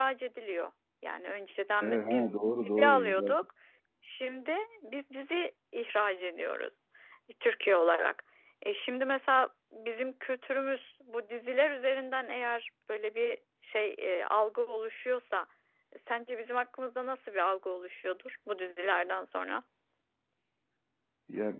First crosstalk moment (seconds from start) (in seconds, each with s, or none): 1.8 s